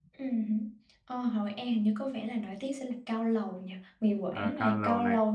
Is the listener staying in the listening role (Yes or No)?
No